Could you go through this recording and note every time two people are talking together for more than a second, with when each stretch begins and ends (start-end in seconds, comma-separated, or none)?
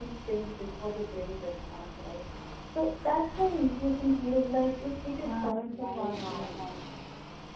5.2-6.5